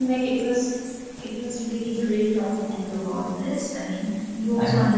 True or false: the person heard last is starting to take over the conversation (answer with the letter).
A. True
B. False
B